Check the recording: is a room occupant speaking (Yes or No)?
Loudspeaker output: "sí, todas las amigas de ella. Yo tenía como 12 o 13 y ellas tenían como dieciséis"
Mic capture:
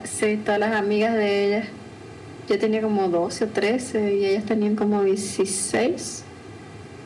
No